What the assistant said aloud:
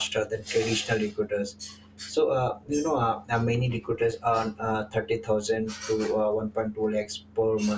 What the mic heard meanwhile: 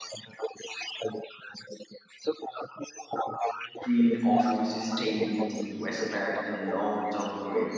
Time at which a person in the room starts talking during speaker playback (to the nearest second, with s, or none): 4 s